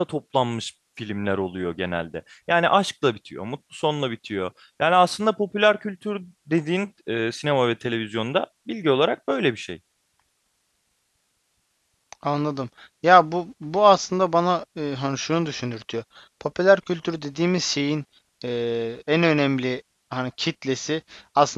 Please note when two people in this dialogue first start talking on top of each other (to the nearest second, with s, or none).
none